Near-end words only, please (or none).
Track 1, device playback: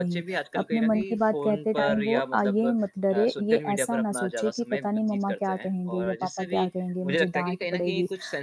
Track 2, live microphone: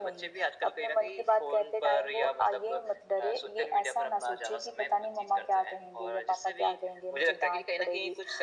none